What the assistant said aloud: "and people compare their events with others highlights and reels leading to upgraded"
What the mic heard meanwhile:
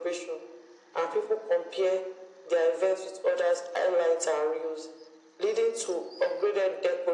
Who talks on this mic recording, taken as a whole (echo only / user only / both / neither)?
echo only